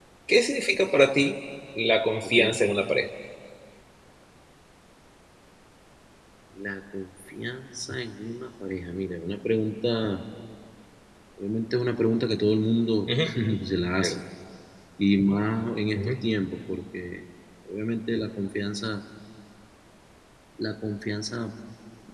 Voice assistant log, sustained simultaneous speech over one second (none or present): none